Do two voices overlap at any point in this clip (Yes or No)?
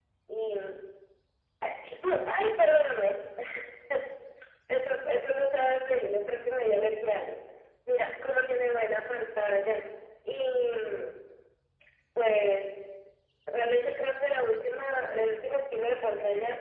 No